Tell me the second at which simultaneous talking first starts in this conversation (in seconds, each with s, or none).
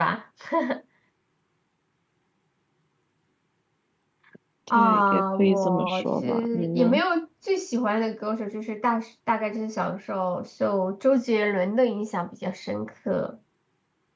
4.7 s